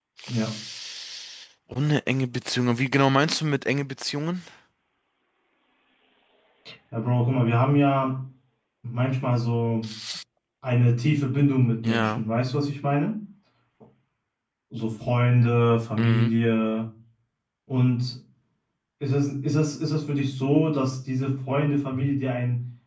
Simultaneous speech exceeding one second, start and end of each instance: none

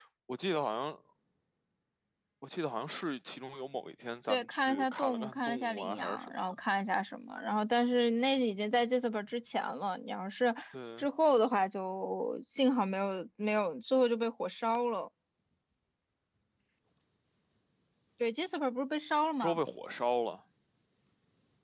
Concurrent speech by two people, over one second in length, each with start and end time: 4.3-6.3

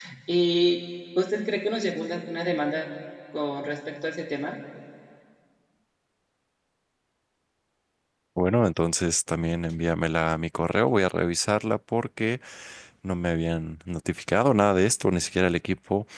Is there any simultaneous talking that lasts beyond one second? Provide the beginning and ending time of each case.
none

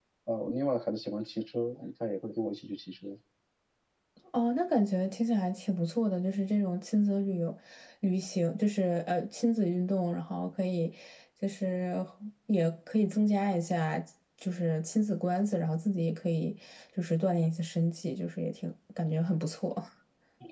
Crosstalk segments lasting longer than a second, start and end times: none

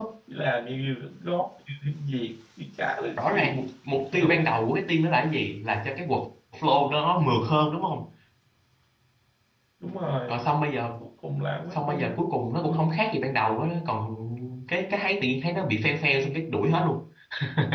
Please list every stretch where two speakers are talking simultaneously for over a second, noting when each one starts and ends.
none

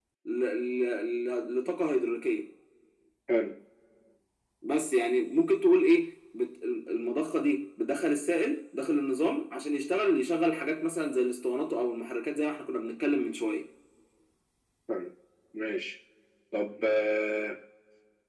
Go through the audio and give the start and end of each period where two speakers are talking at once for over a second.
none

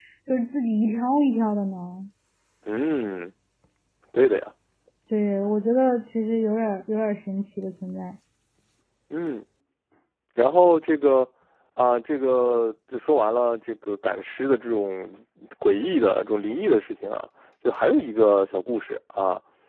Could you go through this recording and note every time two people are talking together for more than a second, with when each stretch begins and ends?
none

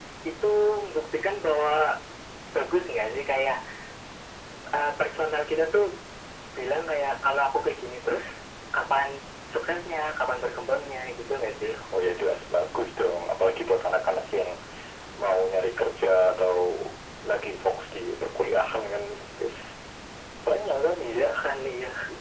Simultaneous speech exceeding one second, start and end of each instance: none

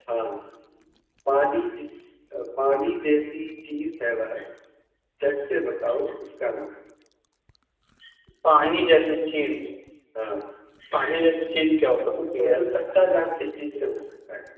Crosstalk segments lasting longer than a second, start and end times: none

